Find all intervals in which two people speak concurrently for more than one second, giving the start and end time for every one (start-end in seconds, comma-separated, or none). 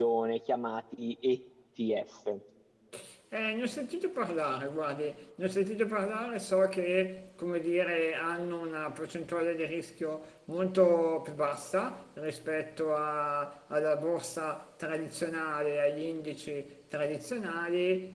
none